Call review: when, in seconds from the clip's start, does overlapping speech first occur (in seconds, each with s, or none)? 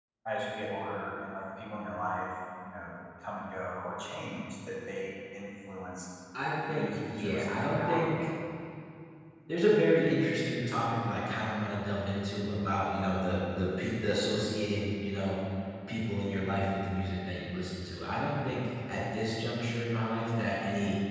6.7 s